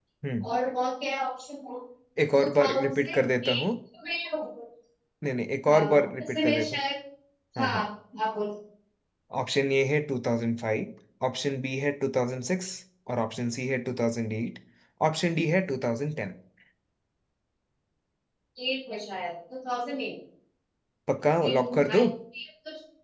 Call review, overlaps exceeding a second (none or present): present